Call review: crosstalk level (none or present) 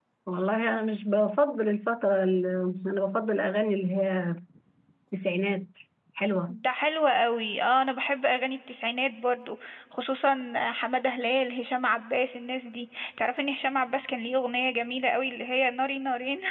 none